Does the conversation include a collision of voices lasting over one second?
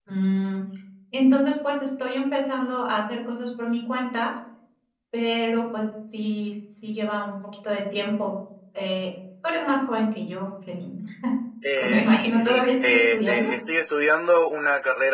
Yes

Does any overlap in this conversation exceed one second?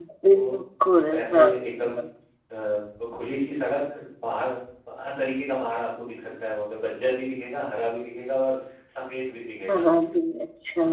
No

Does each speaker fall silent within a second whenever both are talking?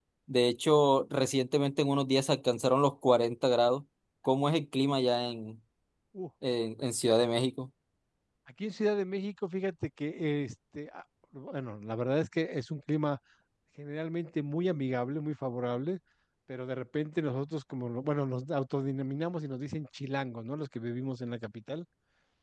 Yes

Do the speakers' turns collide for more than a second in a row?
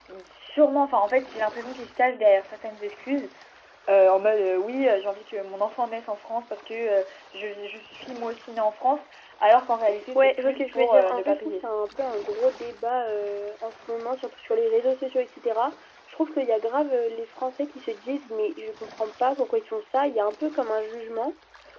Yes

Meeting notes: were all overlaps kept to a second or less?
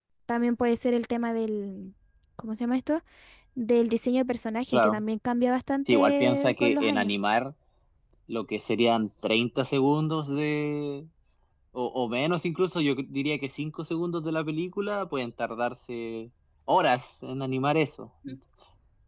No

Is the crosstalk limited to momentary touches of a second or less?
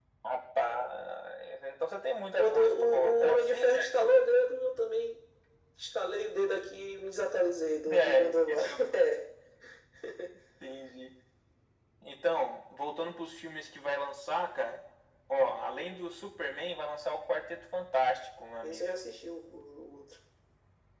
No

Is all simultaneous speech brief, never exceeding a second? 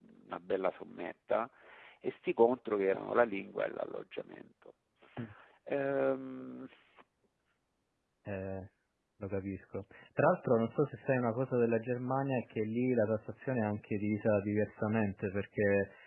Yes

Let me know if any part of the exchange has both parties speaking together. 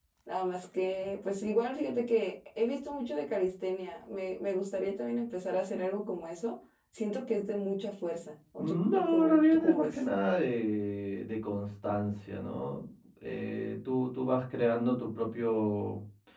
Yes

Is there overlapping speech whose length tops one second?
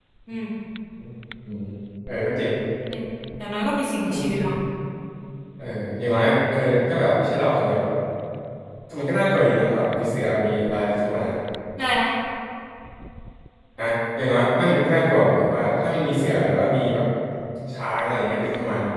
No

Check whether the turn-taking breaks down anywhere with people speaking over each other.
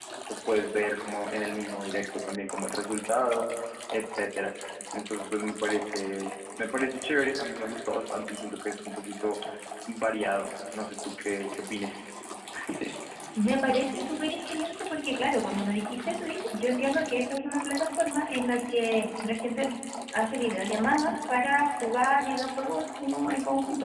No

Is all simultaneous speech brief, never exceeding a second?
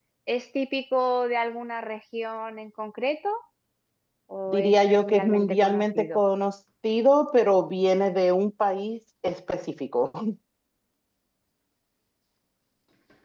No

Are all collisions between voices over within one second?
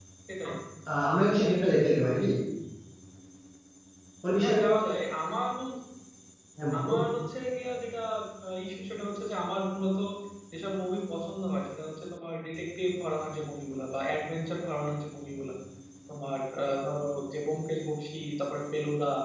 Yes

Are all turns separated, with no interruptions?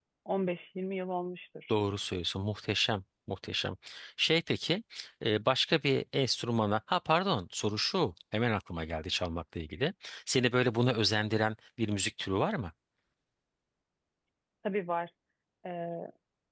Yes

